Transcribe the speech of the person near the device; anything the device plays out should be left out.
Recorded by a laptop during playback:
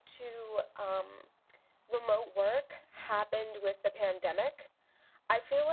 none

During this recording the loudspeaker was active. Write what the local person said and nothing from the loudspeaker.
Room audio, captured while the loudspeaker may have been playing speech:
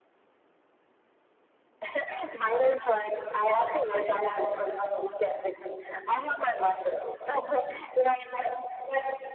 none

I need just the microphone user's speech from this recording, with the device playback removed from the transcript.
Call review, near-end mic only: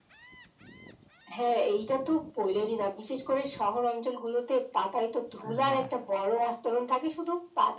অ্যাঁ হ্যাঁ।

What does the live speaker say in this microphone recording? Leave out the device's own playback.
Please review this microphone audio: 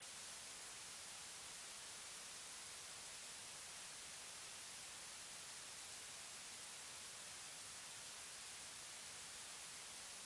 none

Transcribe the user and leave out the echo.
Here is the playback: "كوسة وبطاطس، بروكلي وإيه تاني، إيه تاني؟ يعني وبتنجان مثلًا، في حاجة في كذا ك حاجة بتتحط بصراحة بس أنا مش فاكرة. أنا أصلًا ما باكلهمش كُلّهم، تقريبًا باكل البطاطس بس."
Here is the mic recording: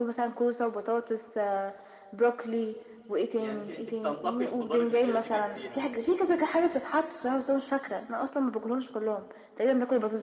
يعني أنتِ أنتِ بتنتقي الخضار اللي بيعجبك فيها.

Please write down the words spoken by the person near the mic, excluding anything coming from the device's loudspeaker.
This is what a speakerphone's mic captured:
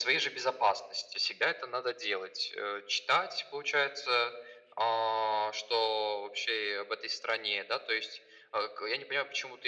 none

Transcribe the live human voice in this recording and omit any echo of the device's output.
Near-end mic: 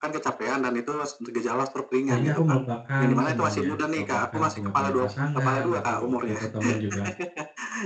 Sehingga aku melupakan semuanya, melupakan aku enggak punya pasangan aku, eee, waktu itu temen juga,

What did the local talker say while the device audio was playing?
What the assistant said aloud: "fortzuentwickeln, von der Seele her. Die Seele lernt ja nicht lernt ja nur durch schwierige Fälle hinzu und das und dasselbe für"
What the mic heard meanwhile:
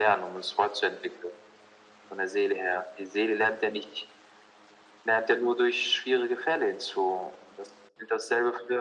none

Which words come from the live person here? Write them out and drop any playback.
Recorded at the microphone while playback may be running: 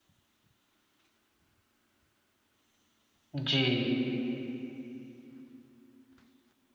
जी।

